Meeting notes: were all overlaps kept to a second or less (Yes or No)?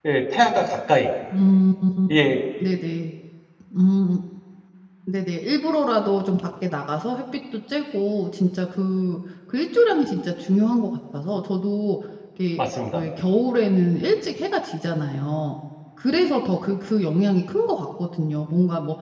Yes